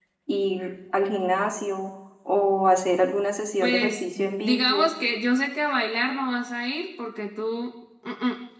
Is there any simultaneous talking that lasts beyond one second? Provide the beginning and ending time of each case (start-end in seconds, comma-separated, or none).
3.6-4.9